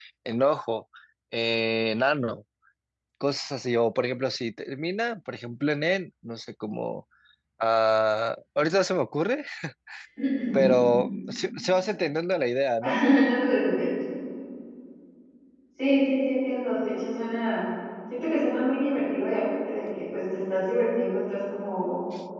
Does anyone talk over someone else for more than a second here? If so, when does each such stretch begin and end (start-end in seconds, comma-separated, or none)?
none